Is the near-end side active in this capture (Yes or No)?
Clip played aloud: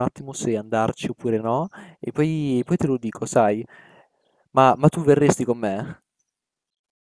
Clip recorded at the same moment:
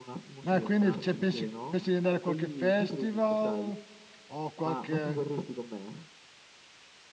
Yes